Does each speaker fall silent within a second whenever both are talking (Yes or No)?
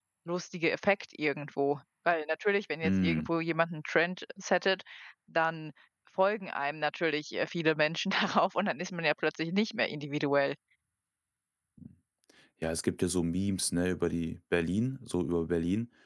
Yes